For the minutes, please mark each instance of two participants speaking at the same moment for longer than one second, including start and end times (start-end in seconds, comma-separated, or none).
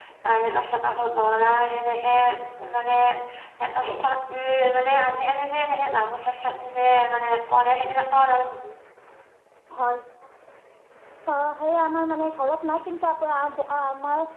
none